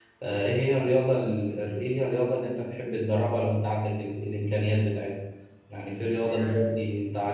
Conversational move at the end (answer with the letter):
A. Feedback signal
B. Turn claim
A